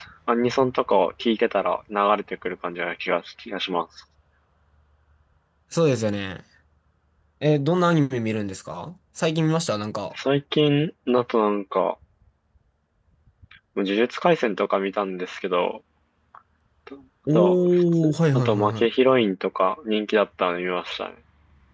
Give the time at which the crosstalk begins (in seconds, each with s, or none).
17.3 s